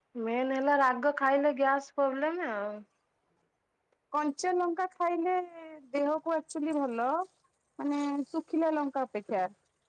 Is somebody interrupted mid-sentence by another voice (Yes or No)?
No